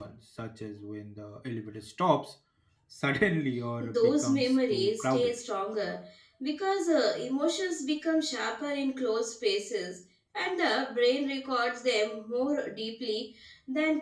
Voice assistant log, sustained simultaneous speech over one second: present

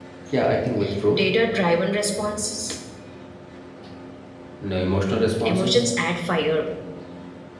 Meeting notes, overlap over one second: none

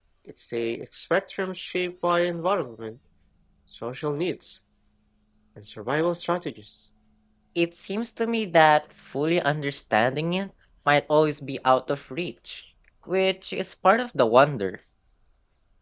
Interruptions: none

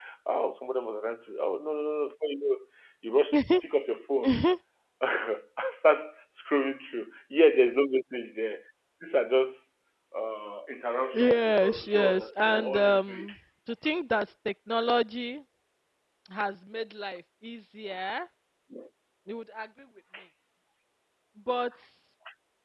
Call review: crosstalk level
present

